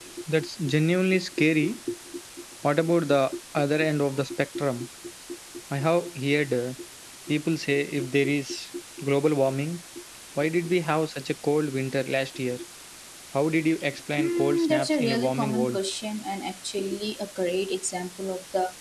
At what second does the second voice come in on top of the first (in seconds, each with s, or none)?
14.2 s